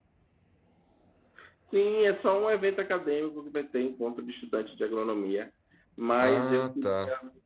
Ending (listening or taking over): listening